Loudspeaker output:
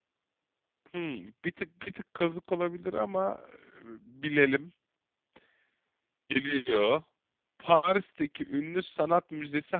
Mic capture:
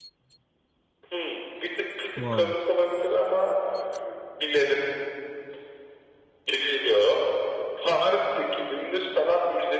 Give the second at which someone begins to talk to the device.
2.1 s

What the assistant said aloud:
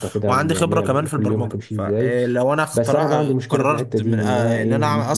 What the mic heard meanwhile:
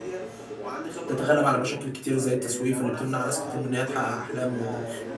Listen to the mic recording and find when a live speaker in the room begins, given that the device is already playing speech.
1.1 s

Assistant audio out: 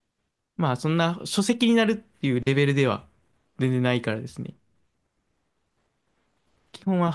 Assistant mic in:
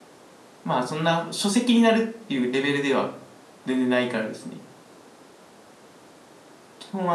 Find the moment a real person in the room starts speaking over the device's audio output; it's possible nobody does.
none

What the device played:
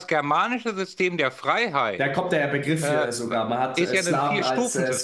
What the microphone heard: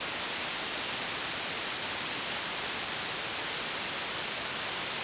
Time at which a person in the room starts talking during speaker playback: none

